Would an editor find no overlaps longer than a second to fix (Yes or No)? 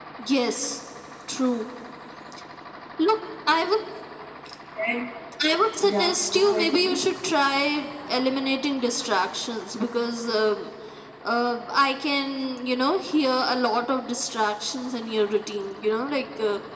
No